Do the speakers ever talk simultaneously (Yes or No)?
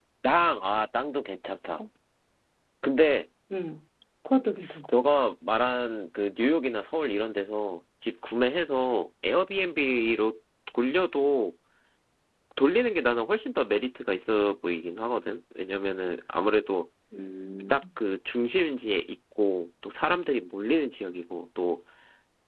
No